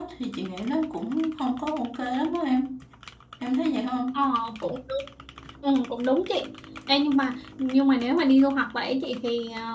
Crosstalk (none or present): none